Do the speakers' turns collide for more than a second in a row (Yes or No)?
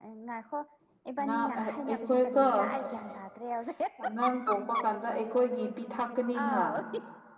Yes